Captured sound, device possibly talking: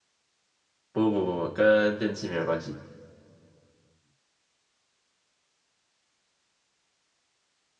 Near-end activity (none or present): present